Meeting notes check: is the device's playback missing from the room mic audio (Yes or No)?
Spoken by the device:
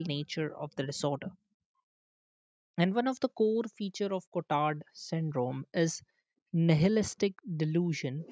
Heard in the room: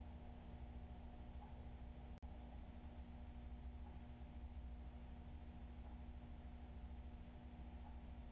Yes